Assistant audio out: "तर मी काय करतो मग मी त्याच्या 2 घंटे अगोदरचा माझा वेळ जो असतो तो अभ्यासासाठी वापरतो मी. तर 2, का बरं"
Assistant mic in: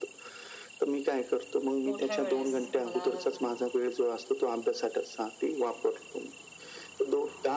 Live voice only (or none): मोठ्या वेळेस मला